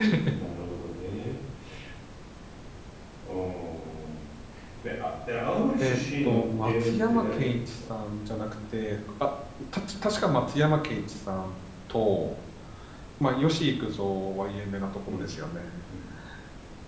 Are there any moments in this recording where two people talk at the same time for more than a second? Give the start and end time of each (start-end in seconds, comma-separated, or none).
5.8-7.7